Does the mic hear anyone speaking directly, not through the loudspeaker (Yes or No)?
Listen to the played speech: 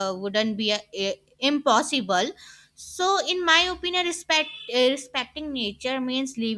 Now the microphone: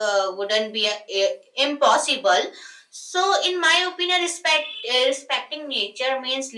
No